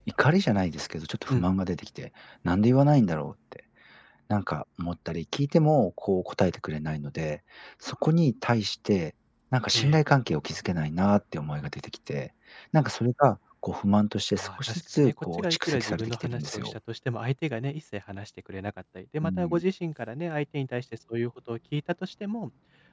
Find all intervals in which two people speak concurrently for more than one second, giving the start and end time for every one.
14.3-16.7

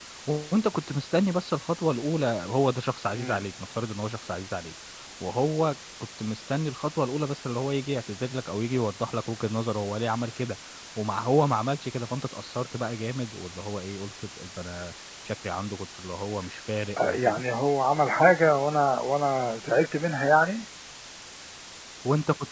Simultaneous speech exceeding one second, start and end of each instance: none

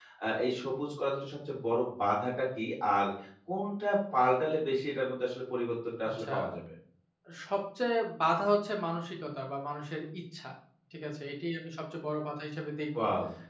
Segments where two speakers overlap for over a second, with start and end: none

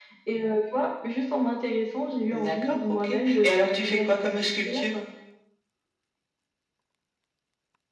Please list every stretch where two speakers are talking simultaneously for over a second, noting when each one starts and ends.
2.3-4.8

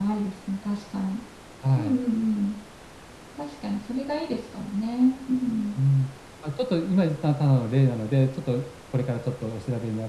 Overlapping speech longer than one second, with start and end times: none

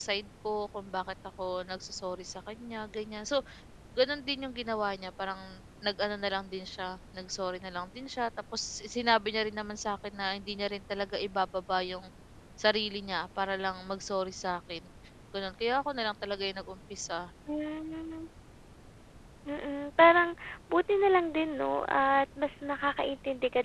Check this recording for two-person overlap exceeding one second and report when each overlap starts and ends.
none

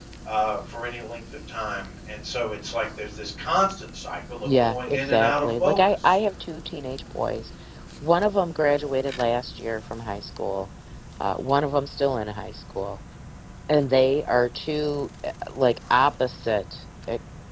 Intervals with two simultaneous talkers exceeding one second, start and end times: 4.4-6.2

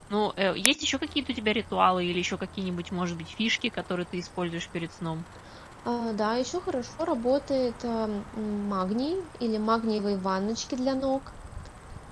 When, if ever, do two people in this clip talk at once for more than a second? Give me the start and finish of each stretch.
none

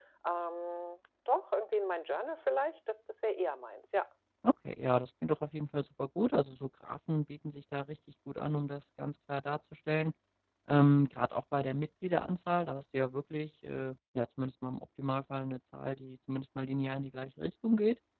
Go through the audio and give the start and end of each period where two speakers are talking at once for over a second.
none

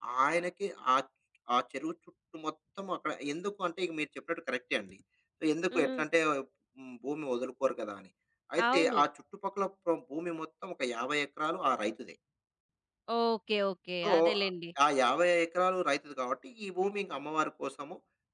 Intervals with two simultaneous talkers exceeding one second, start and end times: none

